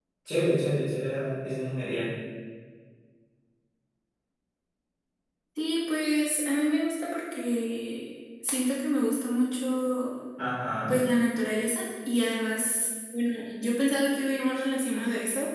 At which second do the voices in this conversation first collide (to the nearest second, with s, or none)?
none